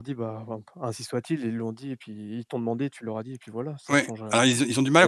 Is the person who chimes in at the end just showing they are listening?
No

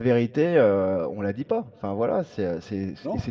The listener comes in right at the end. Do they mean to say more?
No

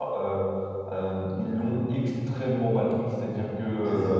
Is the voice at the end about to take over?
No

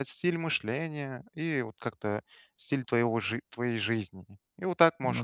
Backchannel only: Yes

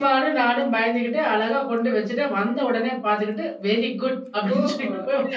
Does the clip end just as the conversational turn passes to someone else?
Yes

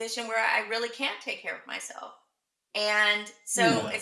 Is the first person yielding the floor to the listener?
No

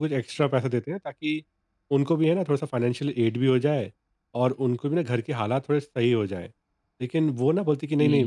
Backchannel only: Yes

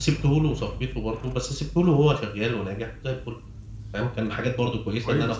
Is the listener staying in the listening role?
Yes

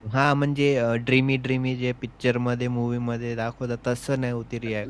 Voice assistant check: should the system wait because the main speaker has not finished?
No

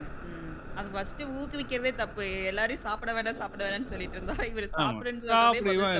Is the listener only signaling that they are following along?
No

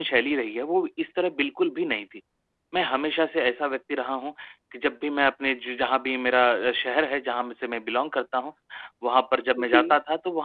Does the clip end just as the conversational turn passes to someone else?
No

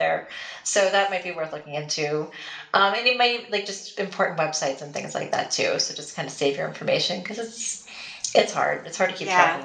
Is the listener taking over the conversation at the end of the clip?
Yes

